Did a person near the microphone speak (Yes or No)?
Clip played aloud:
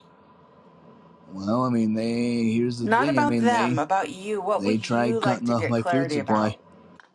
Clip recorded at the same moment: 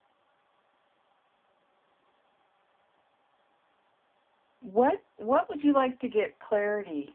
Yes